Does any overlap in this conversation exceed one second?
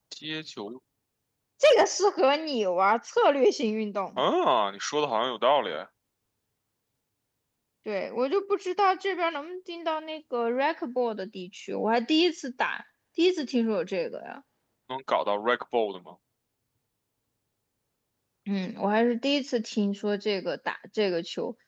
No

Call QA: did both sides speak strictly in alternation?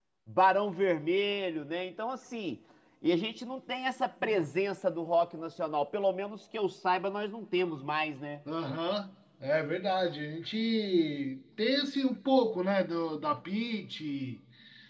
Yes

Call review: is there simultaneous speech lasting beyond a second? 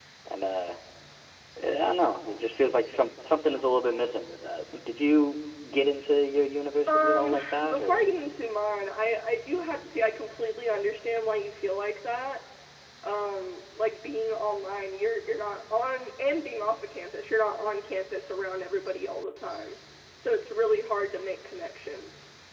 Yes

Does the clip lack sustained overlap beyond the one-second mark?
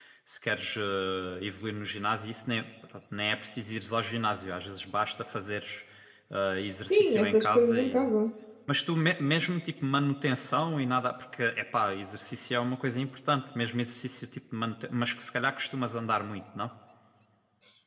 No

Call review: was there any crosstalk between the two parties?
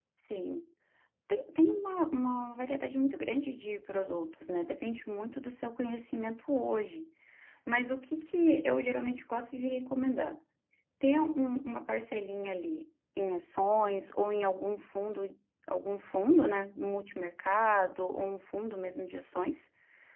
No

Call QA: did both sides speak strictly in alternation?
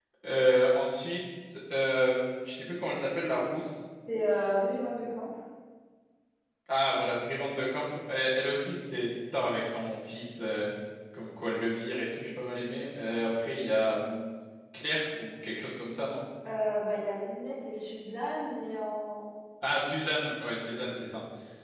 Yes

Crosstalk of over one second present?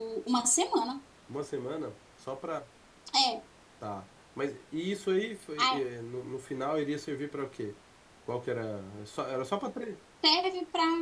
No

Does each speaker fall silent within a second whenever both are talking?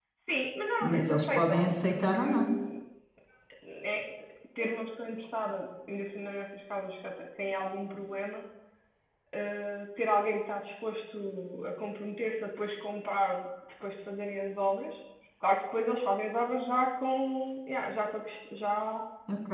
No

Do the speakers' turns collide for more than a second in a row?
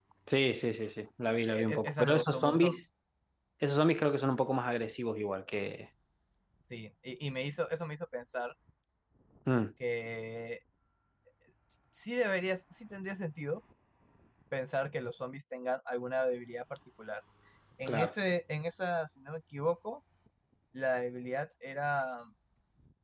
Yes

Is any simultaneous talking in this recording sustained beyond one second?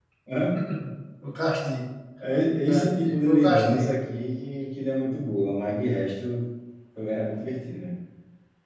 Yes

